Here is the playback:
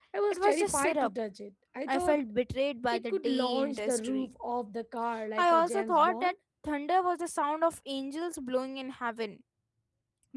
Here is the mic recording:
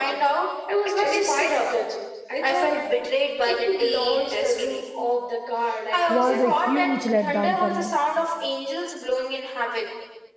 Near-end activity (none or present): present